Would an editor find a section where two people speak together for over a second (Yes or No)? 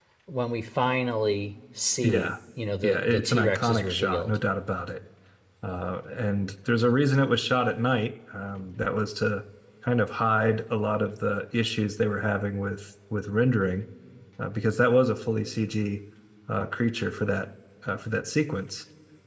Yes